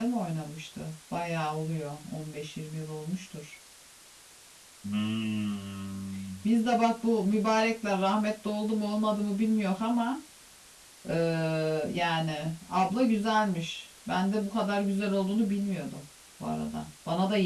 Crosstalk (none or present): none